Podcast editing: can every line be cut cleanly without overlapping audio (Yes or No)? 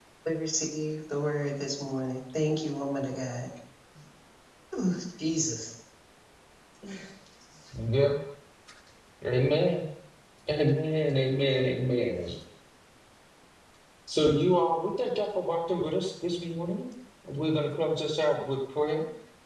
Yes